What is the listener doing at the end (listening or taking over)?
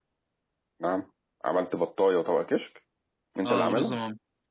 taking over